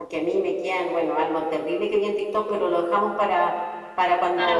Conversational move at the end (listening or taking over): listening